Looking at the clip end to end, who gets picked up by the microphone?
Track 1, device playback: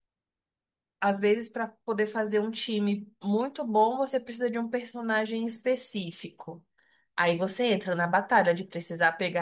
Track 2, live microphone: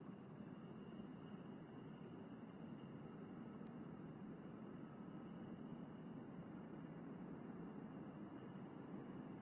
neither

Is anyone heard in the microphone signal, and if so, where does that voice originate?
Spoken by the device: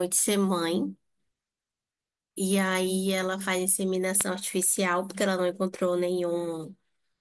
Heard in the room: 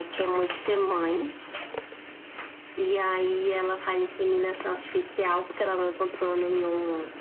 echo only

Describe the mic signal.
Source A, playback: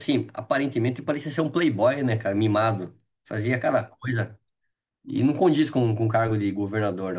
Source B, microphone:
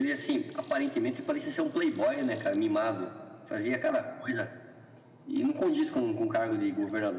echo only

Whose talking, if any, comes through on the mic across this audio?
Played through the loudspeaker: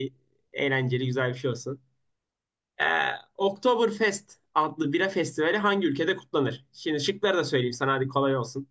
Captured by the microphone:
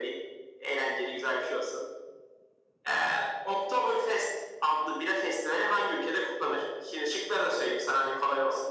echo only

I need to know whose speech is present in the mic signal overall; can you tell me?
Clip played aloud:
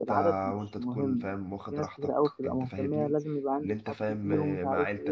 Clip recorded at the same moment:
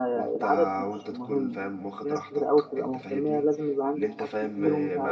echo only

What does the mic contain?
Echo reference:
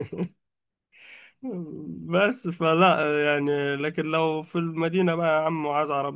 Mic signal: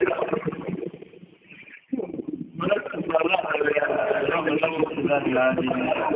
both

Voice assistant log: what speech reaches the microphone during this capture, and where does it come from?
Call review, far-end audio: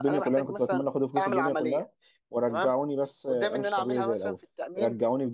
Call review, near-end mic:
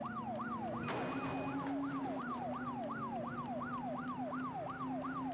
neither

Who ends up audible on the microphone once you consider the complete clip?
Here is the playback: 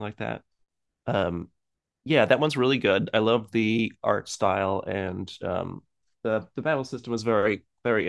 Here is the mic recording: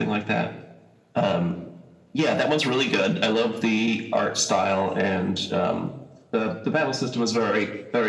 echo only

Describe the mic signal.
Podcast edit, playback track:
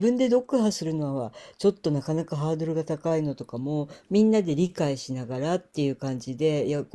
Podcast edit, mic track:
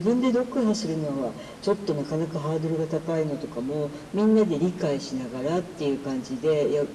echo only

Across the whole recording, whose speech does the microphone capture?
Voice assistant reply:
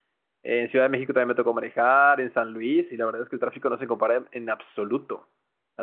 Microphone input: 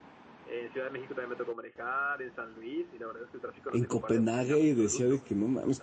both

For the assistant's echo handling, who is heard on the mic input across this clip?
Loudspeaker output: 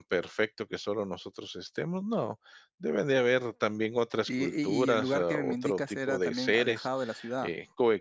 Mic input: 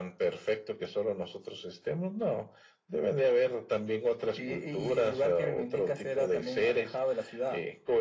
echo only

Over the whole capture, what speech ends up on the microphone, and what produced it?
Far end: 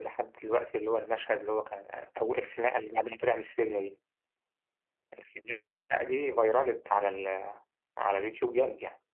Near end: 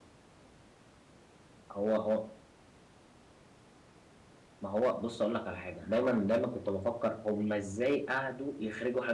user only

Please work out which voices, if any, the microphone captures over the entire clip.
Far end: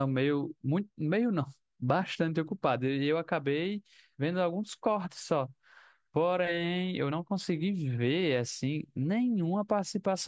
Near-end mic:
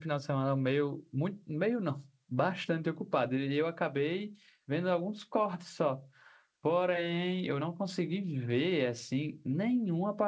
echo only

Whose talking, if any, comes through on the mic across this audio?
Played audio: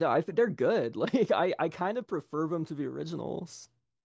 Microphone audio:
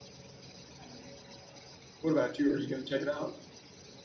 user only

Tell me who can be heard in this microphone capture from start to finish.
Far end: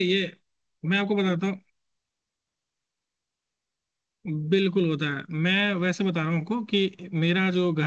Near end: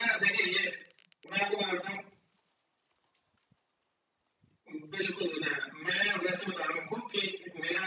echo only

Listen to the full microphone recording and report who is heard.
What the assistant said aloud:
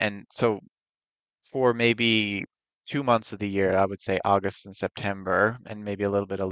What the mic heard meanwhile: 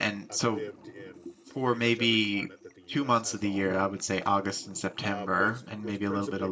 both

